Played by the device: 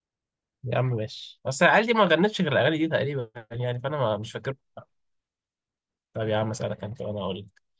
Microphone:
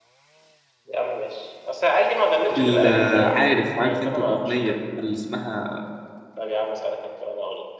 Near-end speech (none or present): present